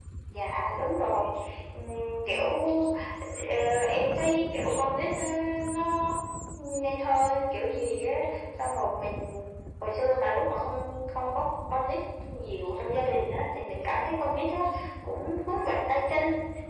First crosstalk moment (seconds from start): none

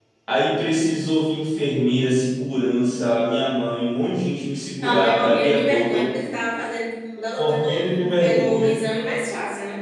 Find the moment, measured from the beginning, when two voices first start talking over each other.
4.8 s

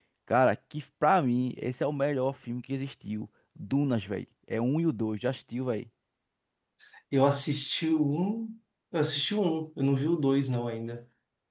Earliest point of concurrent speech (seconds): none

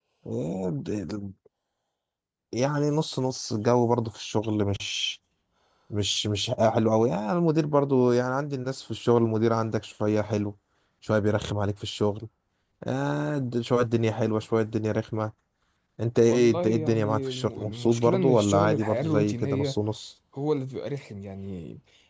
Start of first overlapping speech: 16.2 s

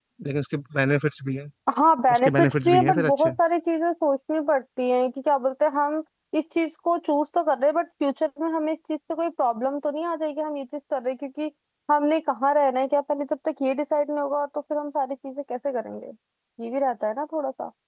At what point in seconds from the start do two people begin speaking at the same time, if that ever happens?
2.1 s

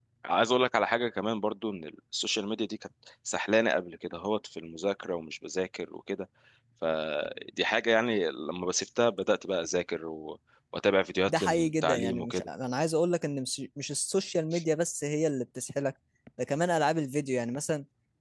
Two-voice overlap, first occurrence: 11.3 s

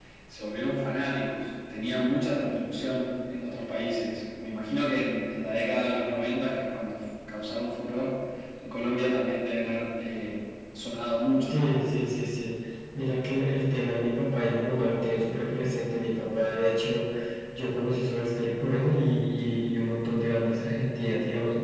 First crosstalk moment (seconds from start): none

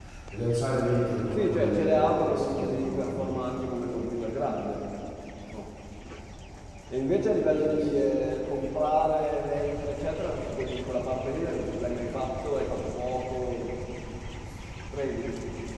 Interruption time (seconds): 1.4 s

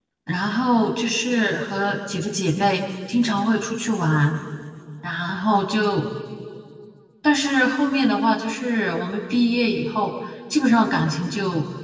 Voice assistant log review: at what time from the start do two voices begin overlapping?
none

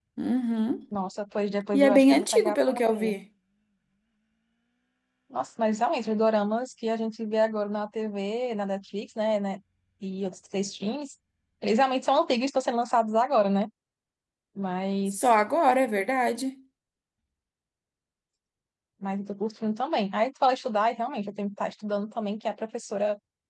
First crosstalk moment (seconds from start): 1.7 s

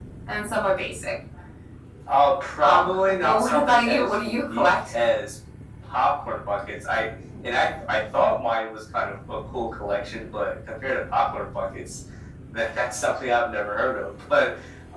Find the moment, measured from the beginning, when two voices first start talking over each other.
2.6 s

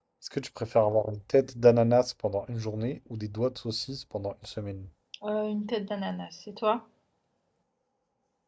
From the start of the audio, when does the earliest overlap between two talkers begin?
none

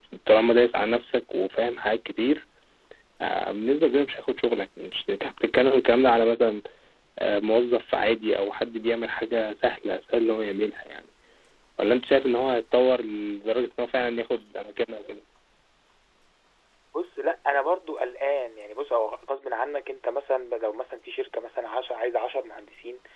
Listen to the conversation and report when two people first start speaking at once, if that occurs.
none

